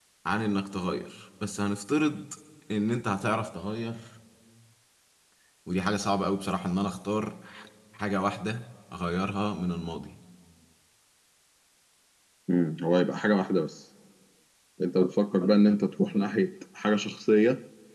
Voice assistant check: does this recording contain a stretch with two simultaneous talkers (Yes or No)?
No